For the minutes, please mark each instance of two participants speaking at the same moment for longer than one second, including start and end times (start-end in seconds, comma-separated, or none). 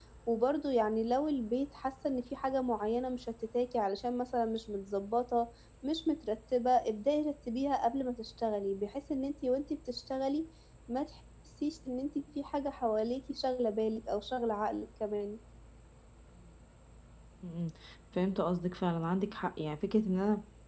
none